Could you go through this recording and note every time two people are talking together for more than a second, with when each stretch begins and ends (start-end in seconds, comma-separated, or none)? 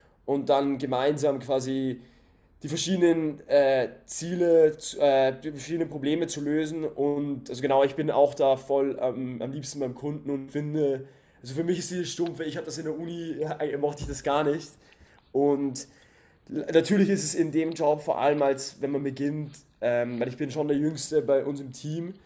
none